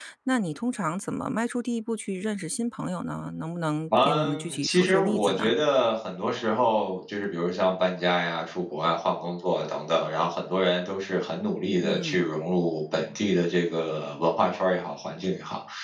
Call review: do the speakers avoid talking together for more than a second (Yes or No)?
No